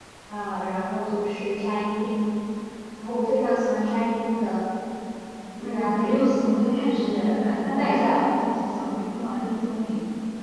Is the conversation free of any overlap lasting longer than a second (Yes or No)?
No